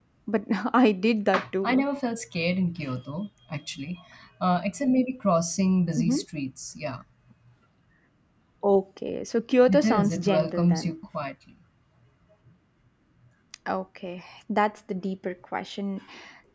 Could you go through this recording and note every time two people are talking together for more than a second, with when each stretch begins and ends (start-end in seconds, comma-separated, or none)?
9.7-10.9